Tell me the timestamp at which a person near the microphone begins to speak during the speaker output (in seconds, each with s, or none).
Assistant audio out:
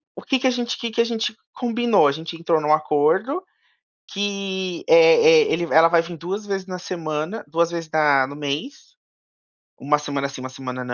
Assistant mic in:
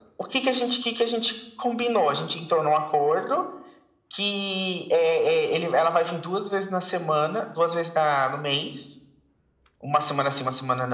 none